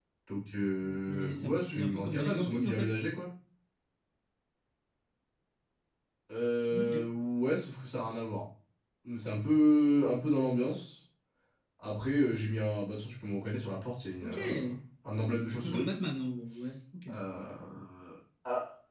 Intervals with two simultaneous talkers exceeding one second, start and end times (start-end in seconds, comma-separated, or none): 0.8-3.0